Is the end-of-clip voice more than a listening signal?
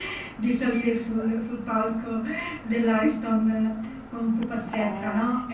No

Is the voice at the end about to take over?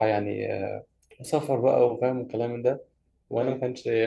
No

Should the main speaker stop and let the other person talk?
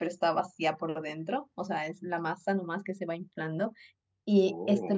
No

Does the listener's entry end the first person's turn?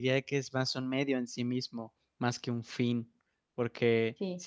No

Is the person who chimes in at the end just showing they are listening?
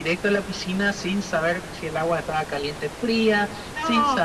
No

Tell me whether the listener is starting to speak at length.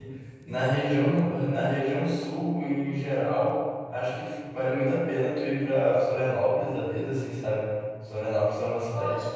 No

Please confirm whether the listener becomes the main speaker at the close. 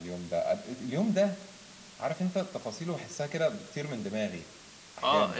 Yes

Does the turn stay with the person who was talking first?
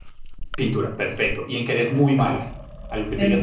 Yes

